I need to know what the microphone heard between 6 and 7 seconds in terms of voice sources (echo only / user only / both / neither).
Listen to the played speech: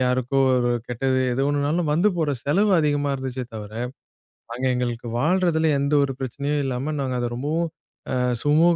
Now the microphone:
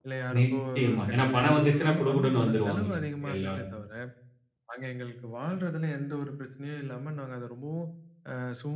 echo only